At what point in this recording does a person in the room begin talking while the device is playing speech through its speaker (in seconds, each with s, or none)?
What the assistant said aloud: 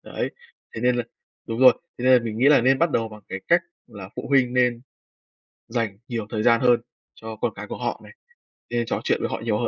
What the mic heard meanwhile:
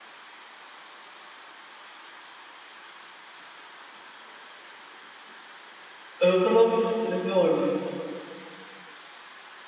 6.2 s